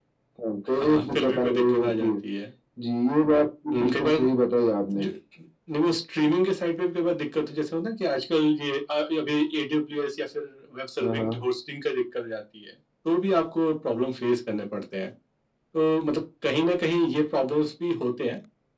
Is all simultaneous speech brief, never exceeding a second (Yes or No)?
No